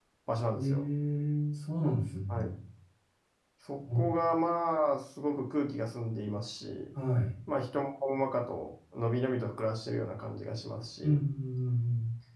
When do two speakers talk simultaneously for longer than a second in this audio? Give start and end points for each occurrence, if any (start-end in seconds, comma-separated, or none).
none